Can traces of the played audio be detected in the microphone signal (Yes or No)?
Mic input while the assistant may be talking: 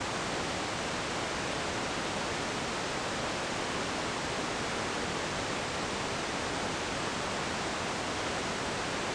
No